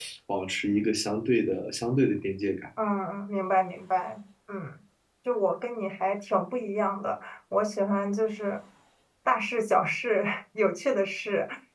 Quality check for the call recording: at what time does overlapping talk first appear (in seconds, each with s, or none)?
none